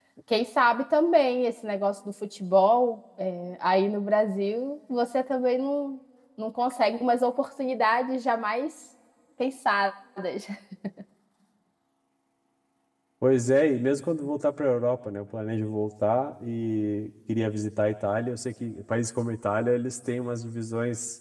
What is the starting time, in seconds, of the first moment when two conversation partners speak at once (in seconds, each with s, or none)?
none